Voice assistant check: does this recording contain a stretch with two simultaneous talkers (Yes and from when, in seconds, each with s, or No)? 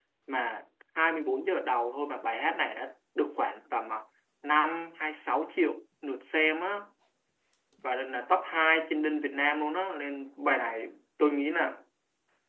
No